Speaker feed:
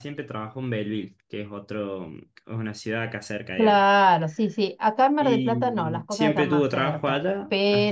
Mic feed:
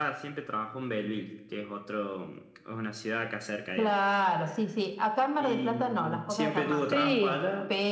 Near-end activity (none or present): present